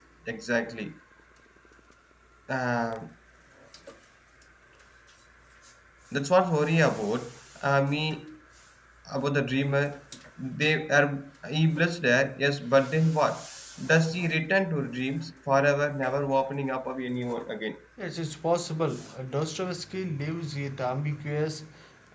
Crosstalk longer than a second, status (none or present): none